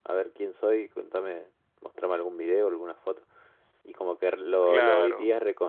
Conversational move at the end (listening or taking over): listening